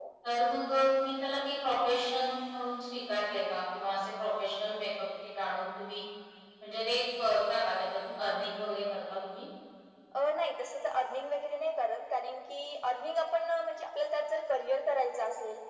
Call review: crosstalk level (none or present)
none